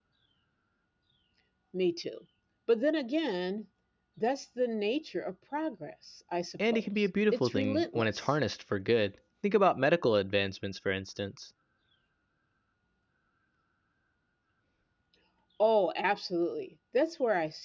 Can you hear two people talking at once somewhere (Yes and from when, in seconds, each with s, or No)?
Yes, from 6.6 s